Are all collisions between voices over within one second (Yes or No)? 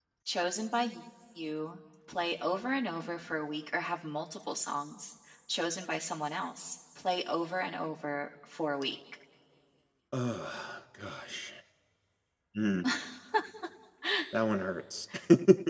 Yes